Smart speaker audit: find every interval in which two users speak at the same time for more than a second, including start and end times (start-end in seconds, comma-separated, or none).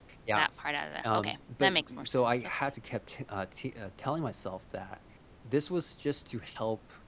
1.0-2.5